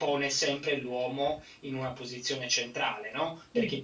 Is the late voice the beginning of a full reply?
No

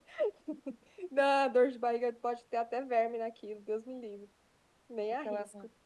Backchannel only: No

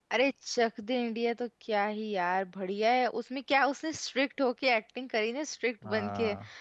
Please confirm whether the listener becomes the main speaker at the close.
No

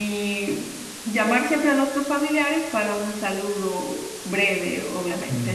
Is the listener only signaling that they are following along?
No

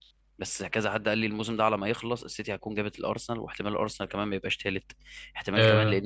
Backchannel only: Yes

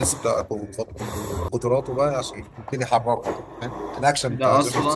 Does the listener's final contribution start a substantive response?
Yes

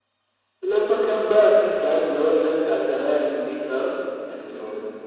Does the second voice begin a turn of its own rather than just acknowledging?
Yes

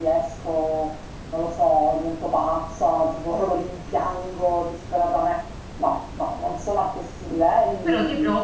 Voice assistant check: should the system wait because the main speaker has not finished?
No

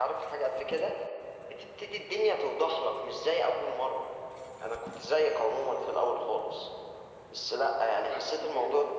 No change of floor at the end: Yes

